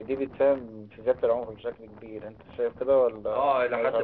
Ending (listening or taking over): taking over